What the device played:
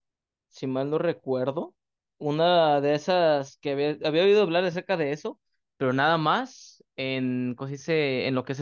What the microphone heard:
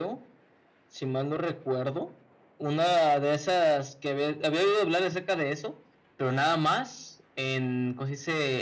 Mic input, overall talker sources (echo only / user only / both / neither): echo only